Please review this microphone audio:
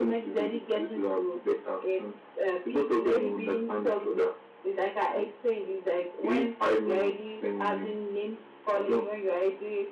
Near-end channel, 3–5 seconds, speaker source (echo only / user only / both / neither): echo only